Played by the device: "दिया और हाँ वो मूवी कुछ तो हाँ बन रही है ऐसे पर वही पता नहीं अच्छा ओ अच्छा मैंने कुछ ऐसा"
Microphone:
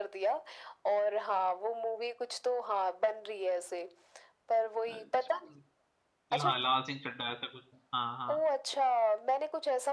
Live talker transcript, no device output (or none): अ, च- हाँ लाल सिंह चड्ढा ऐसा कुछ था हाँ हाँ